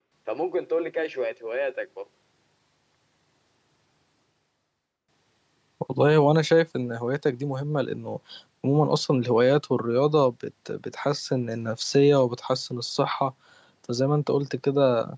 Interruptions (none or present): none